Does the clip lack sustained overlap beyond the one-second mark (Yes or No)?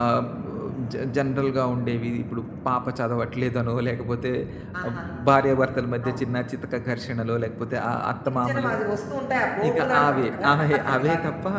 No